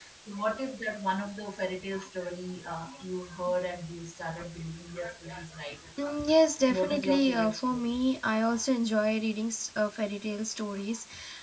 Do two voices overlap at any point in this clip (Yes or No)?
Yes